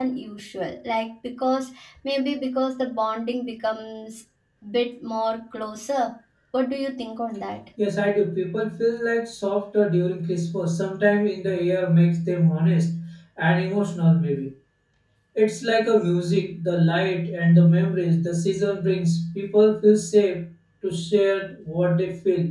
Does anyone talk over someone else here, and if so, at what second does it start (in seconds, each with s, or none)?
none